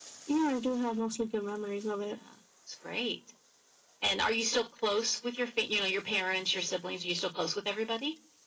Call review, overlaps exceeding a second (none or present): none